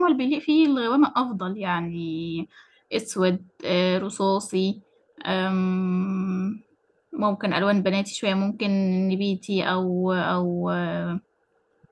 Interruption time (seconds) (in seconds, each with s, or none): none